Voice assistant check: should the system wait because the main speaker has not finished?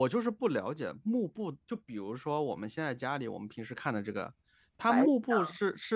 Yes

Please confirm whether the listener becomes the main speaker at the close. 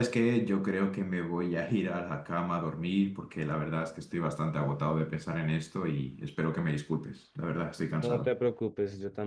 Yes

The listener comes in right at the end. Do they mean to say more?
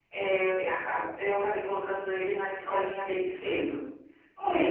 Yes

